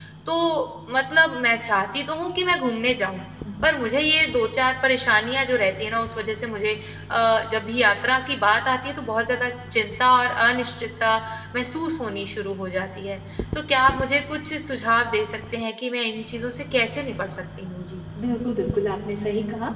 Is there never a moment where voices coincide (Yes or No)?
Yes